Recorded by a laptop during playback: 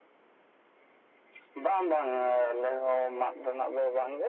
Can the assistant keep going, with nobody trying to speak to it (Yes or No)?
Yes